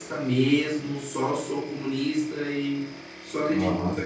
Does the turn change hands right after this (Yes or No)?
No